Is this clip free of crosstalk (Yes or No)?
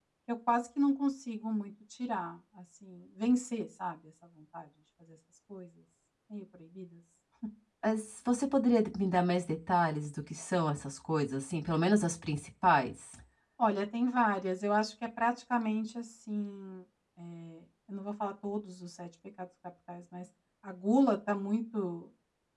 Yes